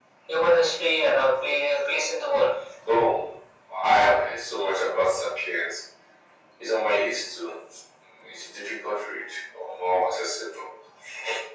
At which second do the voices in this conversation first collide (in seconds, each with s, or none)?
none